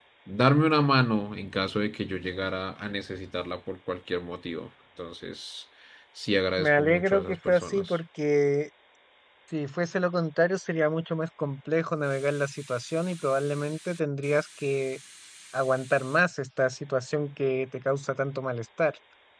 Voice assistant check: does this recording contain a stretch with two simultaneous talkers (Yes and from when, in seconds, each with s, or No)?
Yes, from 6.6 s